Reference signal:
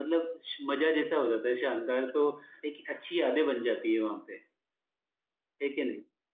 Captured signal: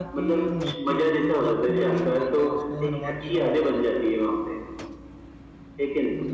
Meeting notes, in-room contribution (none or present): present